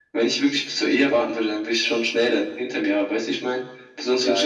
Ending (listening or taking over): taking over